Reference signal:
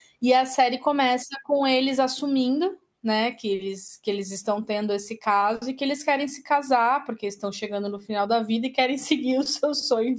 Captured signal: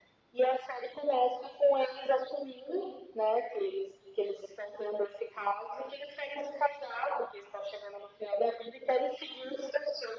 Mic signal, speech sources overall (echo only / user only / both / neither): echo only